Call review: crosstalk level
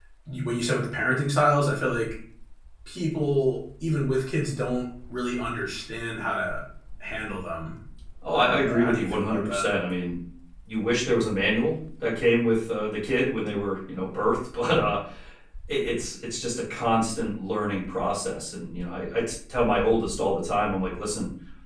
present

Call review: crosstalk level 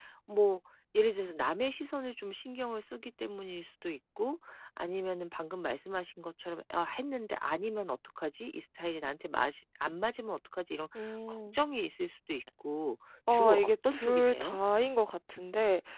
present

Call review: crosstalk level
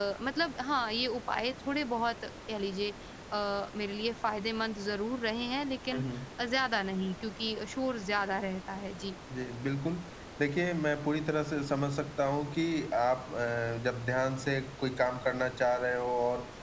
none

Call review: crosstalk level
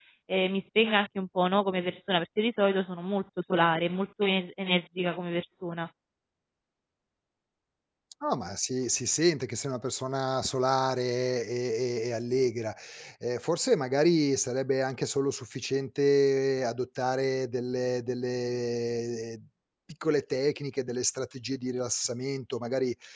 none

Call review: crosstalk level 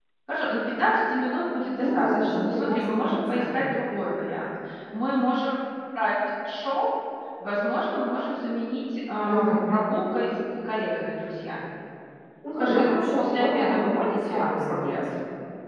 present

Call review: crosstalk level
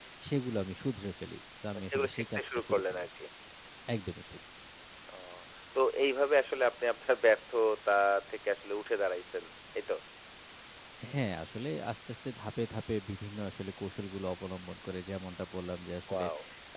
present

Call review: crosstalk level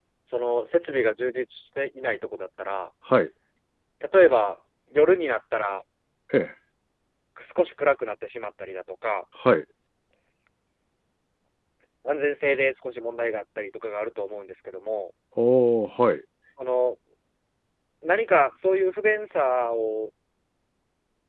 none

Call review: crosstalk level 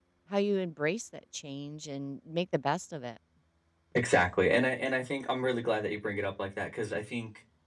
none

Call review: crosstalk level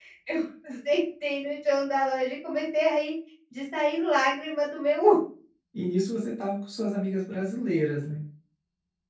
none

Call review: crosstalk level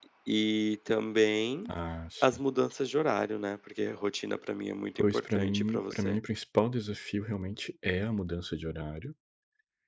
present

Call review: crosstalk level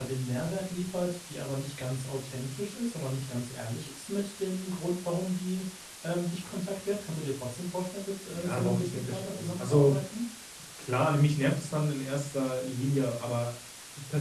present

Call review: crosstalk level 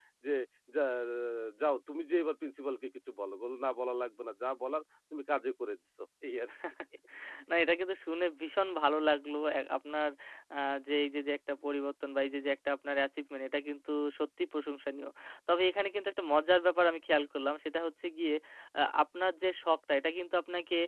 none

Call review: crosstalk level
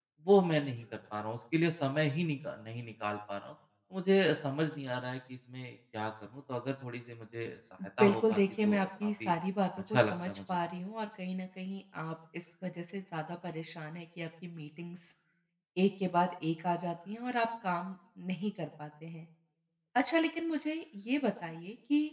present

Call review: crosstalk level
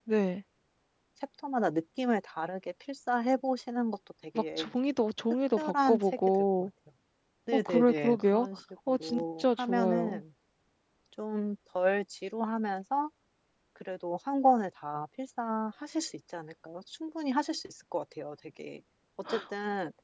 present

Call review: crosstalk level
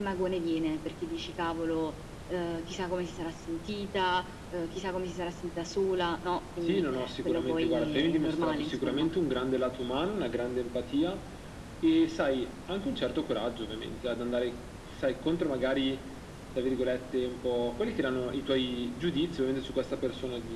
present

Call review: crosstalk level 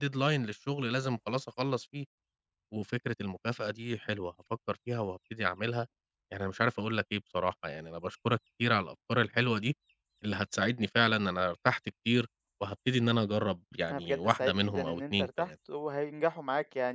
present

